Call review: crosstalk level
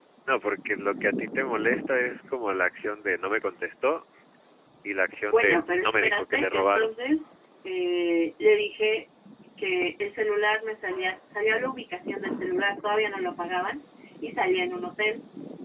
present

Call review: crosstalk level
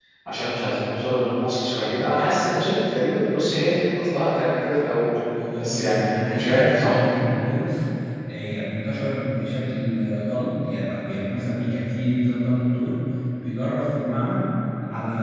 present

